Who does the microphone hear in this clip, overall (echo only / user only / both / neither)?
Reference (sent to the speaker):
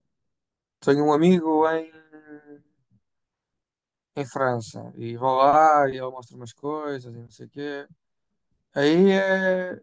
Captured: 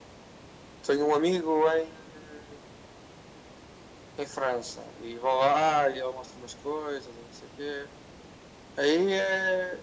echo only